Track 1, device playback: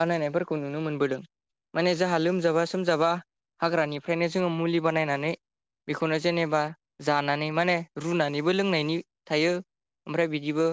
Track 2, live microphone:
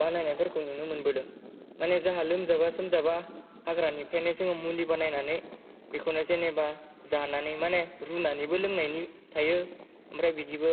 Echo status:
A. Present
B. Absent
A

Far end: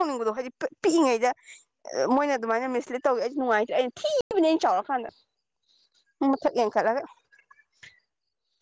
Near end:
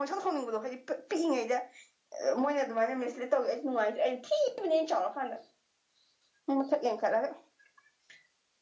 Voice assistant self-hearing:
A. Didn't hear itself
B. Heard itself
B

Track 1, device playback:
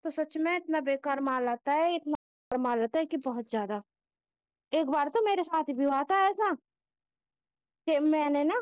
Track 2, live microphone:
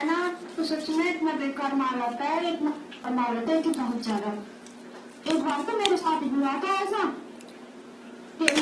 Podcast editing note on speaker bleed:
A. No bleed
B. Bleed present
B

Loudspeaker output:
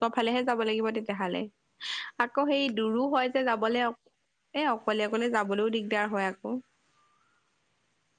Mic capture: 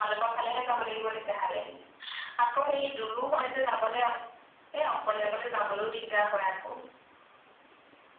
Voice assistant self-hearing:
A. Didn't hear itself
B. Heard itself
B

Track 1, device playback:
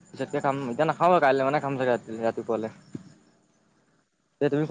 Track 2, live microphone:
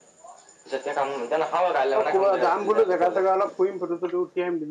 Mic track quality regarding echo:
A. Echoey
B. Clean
A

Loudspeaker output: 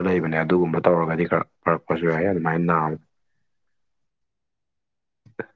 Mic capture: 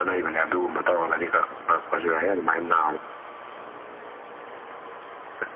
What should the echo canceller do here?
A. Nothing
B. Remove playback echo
B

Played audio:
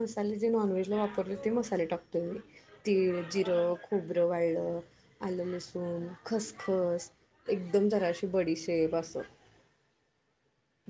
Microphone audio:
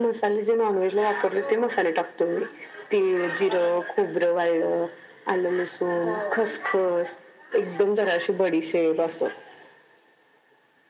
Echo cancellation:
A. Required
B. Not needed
A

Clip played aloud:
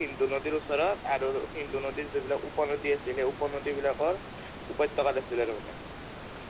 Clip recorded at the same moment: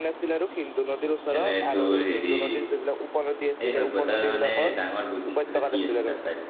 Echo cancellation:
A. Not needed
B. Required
B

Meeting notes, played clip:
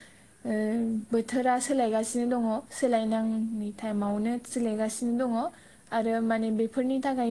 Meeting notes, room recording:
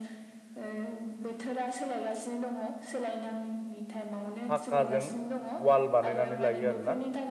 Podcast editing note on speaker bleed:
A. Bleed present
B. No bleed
A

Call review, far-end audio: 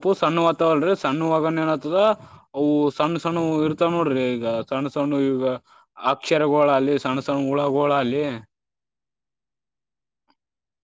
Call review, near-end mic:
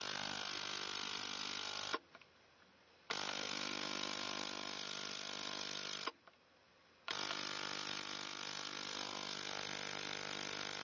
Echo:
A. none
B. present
A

